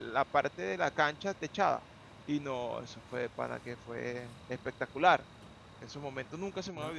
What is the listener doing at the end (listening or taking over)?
taking over